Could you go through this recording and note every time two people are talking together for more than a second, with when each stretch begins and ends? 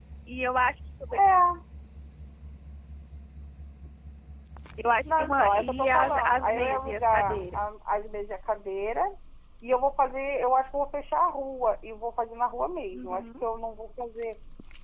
5.0-7.6

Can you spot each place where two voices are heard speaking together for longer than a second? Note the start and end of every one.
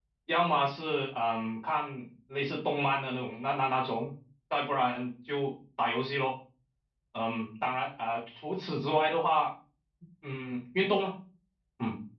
none

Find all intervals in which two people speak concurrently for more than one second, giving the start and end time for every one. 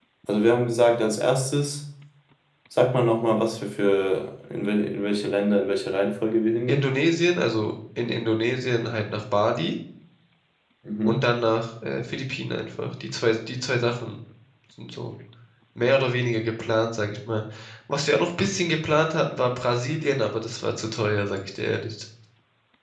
none

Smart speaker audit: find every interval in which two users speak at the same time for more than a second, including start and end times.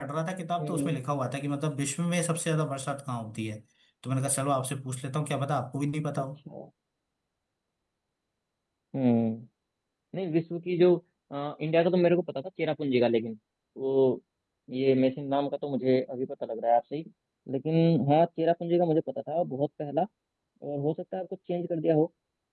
none

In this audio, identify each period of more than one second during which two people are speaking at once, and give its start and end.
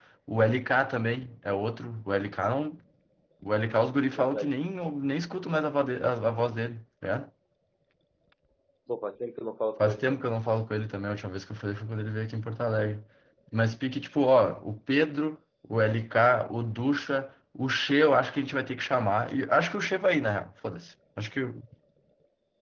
none

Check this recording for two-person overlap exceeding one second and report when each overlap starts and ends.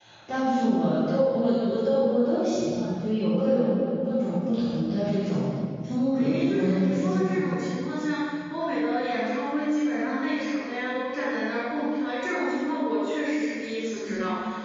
6.1-7.6

